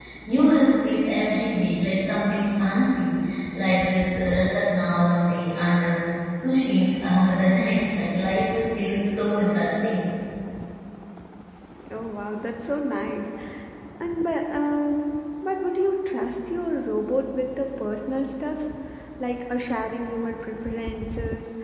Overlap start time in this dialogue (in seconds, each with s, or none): none